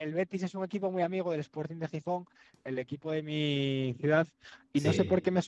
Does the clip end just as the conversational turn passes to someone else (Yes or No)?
No